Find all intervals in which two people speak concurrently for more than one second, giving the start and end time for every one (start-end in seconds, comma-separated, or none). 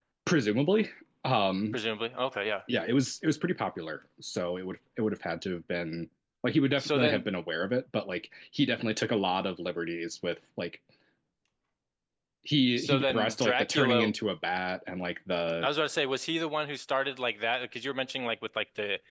12.8-14.1